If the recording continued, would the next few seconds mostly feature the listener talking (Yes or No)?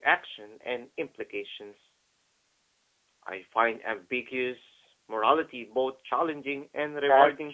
Yes